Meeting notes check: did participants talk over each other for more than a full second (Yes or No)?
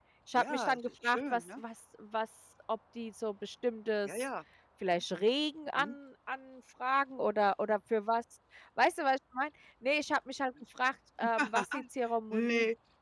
Yes